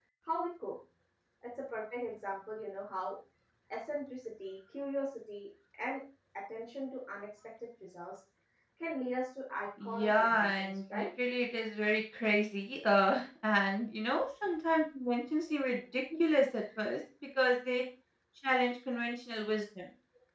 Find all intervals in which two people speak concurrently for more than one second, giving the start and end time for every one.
9.8-11.1

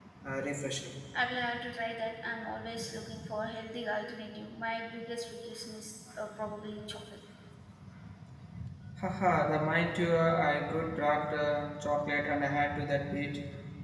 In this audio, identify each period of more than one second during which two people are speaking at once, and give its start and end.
none

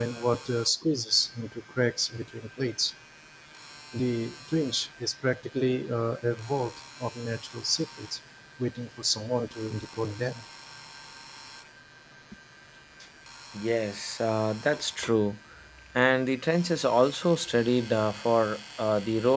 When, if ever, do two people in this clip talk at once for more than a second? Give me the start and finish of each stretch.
none

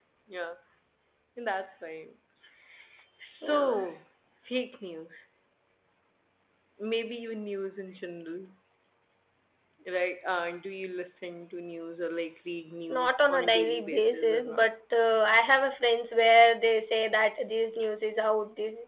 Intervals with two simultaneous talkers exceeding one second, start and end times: 12.9-14.6

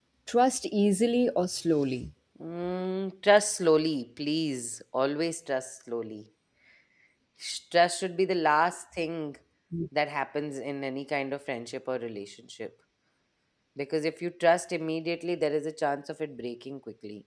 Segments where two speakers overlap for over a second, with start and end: none

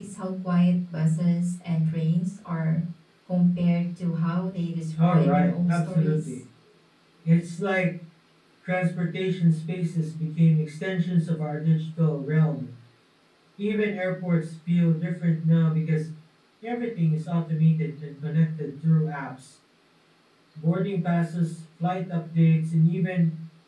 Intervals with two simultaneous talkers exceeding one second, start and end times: 5.0-6.4

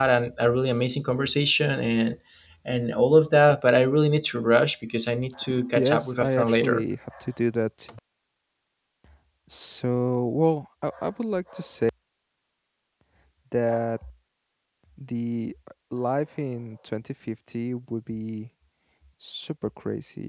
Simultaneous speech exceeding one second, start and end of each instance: 5.5-6.8

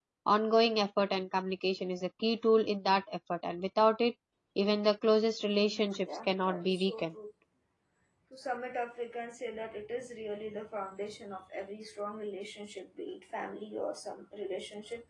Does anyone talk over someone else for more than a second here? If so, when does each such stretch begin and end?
5.6-7.1

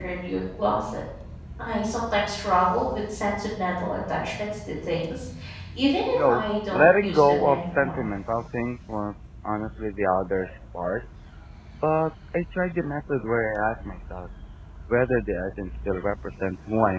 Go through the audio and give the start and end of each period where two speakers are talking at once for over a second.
6.1-8.1

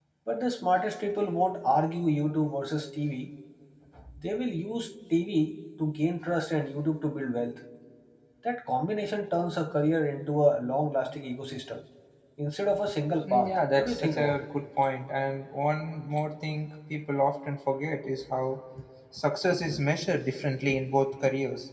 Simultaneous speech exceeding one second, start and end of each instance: 13.3-14.5

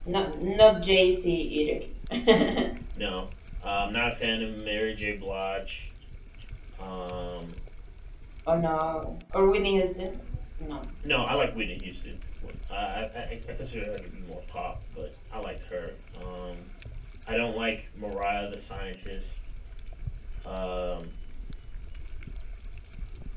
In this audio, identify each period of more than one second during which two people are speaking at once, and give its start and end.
none

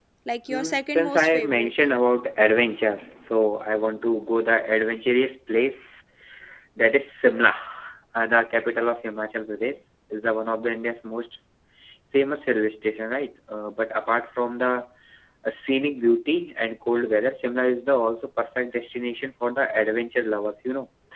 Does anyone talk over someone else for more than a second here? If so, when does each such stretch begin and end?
0.5-1.7

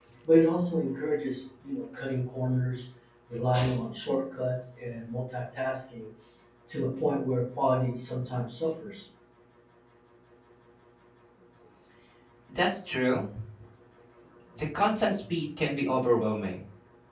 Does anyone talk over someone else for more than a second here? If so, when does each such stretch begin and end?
none

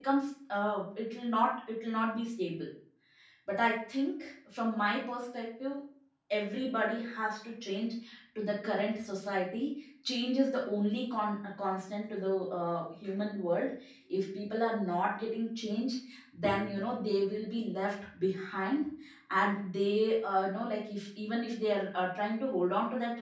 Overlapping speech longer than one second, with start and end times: none

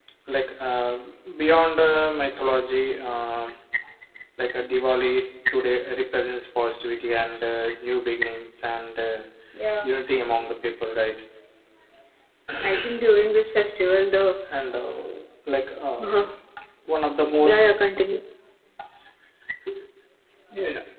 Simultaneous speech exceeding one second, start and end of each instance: none

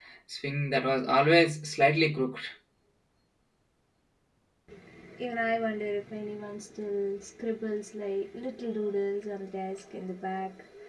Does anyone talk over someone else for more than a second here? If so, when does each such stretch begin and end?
none

